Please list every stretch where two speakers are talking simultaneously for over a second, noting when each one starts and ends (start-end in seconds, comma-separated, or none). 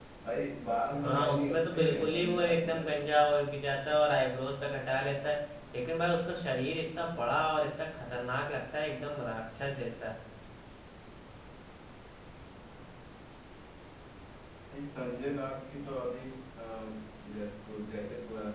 1.0-3.0